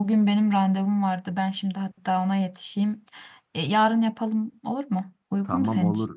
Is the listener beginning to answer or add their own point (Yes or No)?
Yes